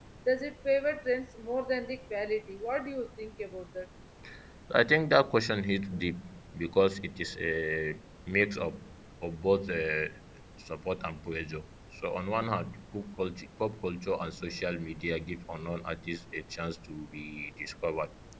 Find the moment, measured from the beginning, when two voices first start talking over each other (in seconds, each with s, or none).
none